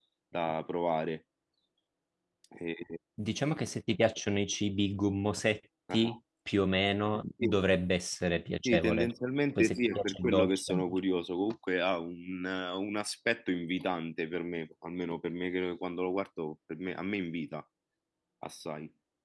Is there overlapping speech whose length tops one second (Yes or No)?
Yes